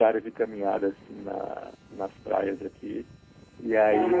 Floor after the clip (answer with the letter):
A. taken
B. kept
B